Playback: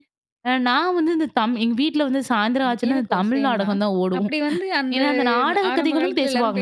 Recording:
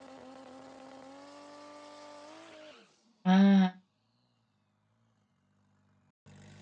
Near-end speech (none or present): present